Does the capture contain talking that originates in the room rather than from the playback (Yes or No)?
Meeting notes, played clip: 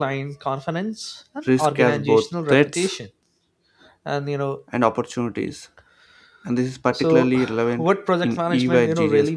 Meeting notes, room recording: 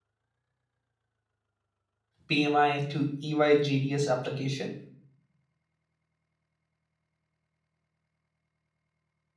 Yes